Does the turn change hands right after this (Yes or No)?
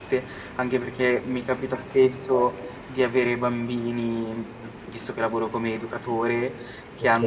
No